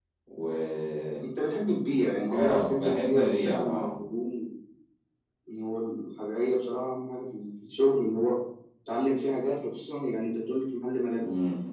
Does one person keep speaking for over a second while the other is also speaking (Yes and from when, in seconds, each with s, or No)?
Yes, from 2.3 s